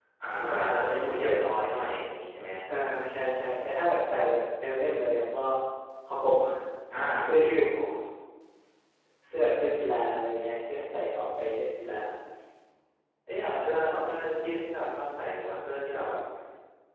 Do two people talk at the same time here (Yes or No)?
Yes